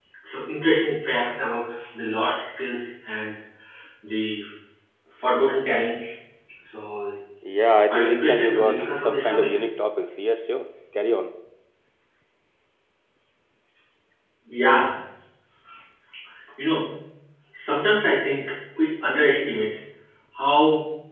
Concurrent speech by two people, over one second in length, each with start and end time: 7.9-9.6

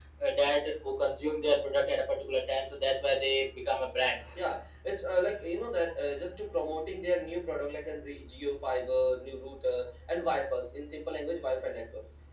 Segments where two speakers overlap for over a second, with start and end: none

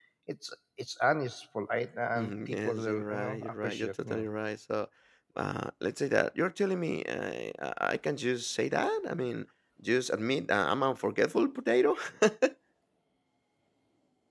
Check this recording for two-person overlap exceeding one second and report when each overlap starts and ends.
2.1-4.3

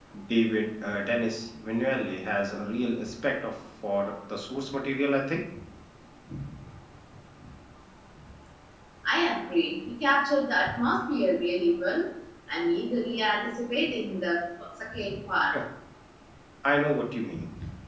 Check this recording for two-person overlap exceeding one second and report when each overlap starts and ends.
none

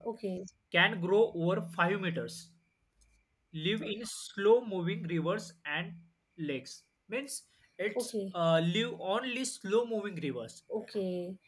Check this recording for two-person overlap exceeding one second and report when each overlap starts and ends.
none

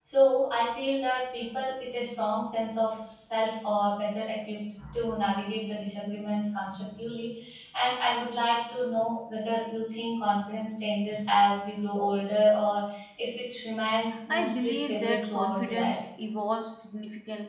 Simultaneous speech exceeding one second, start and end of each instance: 14.3-16.0

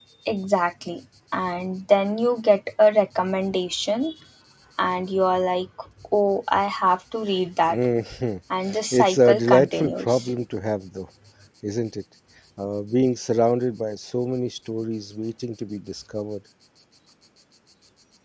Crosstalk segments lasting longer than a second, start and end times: 8.9-10.3

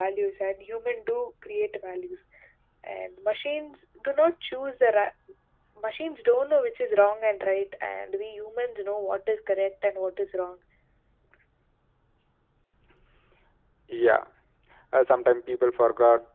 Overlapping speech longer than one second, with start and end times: none

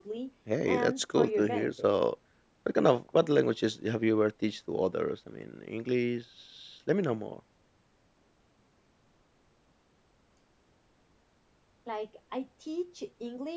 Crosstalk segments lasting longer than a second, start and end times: 0.7-1.9

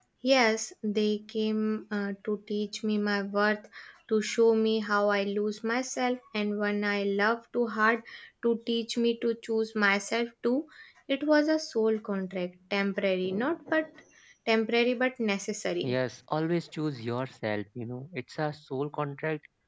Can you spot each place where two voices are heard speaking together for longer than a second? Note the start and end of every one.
none

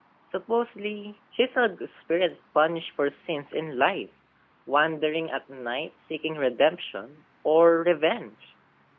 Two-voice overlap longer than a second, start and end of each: none

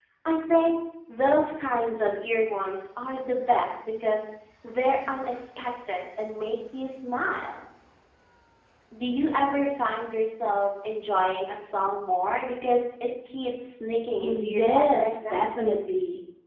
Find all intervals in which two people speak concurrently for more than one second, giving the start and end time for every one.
14.2-15.4

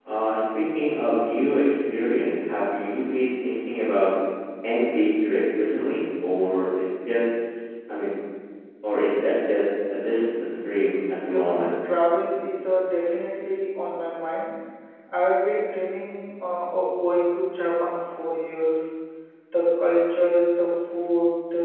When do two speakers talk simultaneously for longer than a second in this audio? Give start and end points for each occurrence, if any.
none

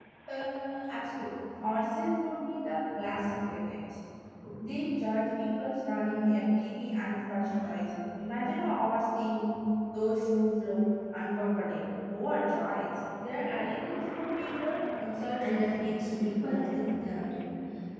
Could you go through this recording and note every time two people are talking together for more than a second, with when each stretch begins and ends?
15.4-16.7

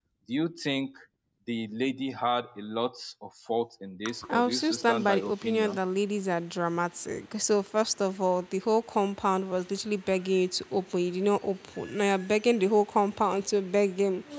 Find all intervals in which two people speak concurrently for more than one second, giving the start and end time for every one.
4.3-5.8

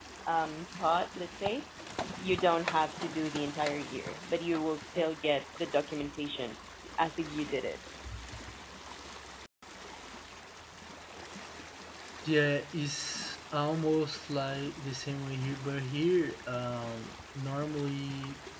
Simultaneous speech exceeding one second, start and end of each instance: none

